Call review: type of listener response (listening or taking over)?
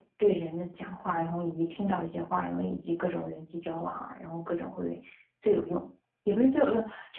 listening